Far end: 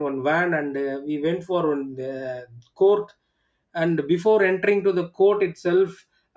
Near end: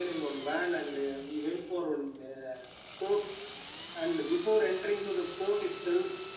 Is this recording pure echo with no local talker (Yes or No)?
Yes